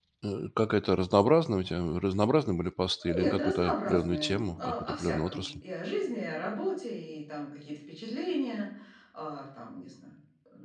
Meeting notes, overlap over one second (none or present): present